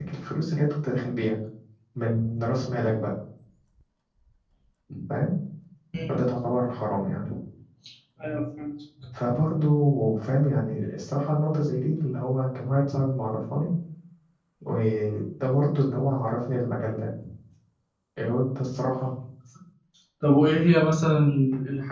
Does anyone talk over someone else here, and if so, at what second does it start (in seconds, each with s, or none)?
none